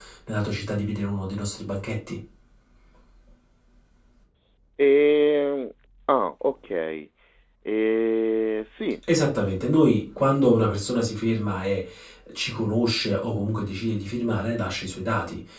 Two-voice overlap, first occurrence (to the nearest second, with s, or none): none